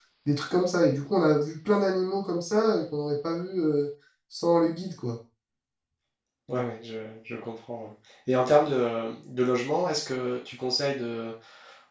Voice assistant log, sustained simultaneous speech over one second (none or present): none